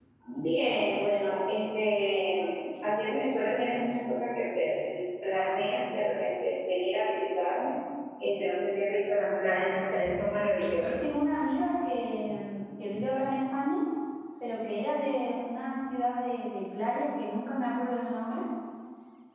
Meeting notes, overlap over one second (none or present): none